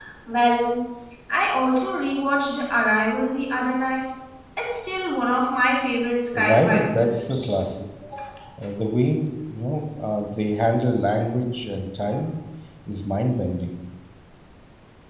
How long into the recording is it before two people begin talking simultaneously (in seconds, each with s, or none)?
6.3 s